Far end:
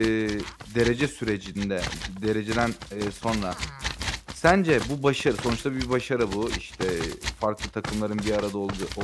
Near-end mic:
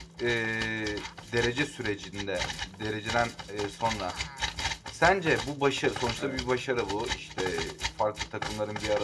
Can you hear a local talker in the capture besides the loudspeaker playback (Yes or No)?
Yes